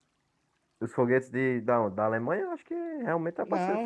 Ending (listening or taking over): taking over